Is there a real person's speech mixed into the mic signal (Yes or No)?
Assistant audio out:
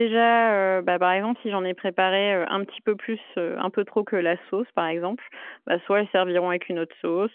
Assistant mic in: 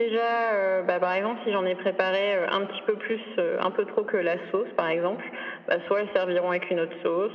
No